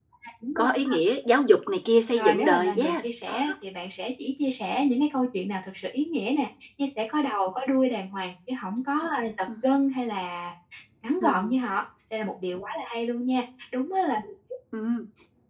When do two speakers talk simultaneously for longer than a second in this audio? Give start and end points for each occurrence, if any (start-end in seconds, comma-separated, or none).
2.2-3.4